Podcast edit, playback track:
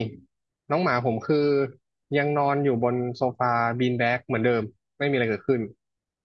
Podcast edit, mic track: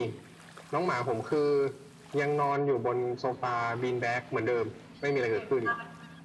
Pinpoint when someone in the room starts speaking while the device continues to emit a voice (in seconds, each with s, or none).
5.3 s